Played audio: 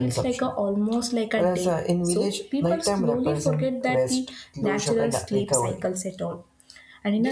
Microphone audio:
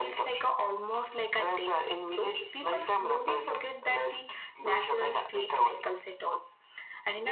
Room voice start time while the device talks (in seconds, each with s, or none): none